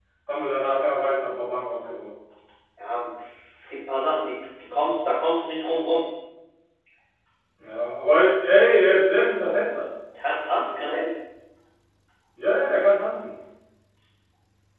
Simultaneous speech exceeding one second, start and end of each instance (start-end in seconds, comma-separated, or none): none